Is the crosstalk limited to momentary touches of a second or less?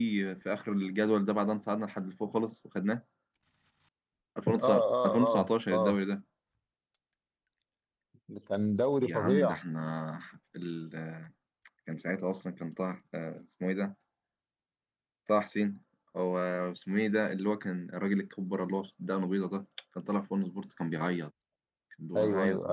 No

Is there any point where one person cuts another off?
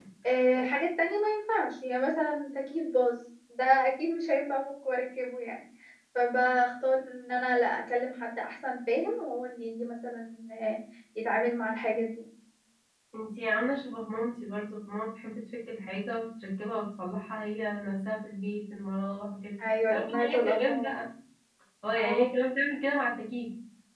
Yes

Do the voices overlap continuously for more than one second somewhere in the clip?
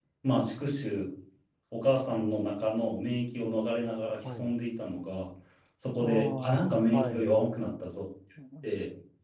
Yes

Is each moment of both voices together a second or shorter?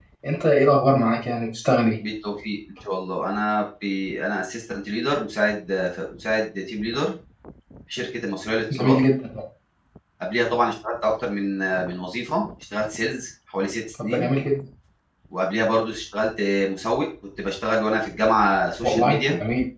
Yes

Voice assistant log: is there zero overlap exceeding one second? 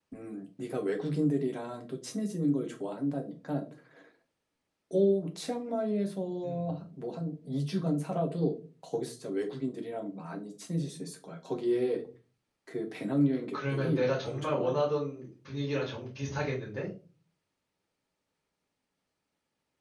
No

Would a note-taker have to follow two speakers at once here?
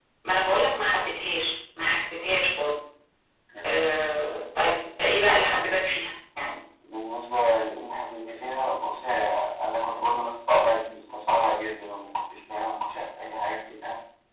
No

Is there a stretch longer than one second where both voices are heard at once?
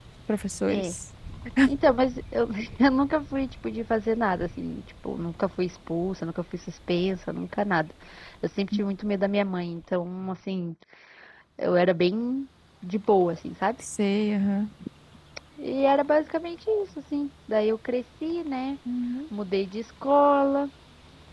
No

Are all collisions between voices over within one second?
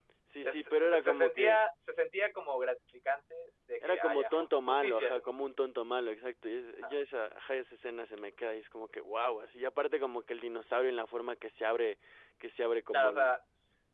No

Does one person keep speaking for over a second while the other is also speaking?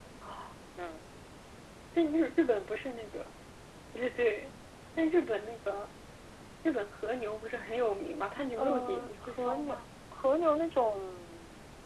Yes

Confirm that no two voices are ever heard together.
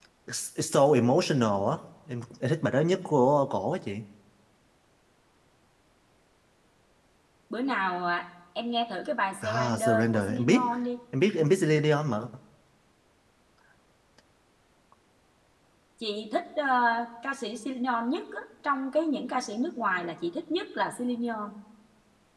No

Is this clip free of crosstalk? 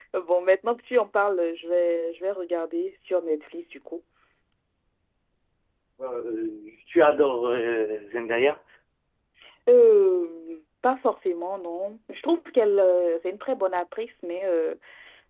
Yes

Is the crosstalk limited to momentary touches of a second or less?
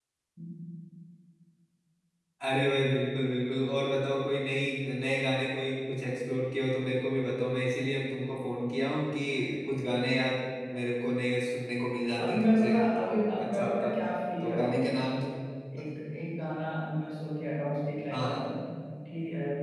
No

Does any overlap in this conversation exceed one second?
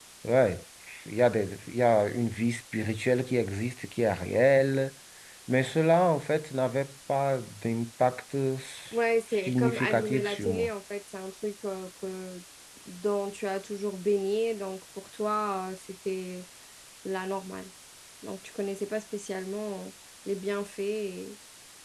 Yes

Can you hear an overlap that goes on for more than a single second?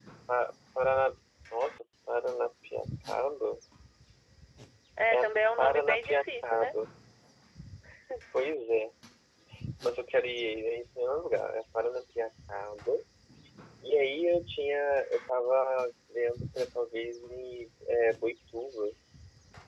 Yes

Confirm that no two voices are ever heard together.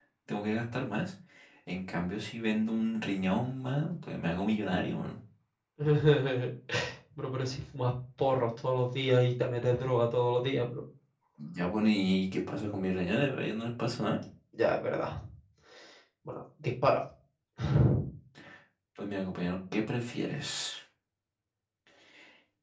Yes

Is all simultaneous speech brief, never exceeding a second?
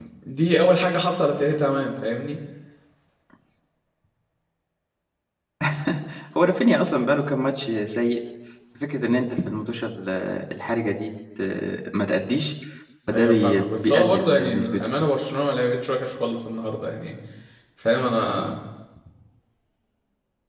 No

